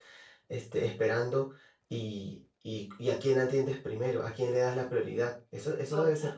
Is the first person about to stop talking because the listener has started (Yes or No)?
Yes